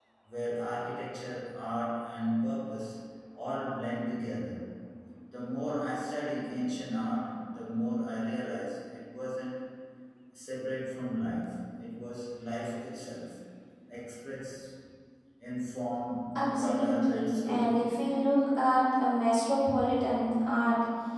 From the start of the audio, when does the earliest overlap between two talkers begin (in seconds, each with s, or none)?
16.4 s